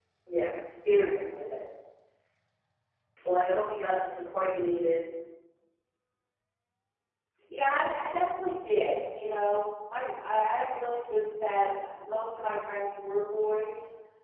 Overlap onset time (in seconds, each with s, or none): none